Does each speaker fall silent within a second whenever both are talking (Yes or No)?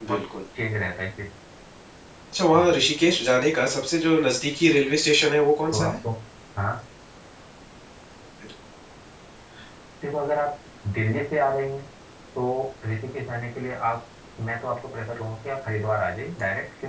Yes